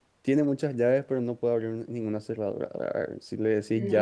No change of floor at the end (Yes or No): Yes